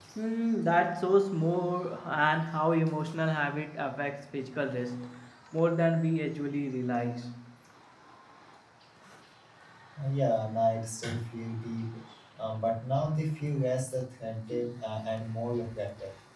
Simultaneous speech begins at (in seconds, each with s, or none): none